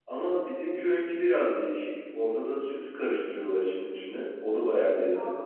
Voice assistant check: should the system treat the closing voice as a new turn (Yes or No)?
Yes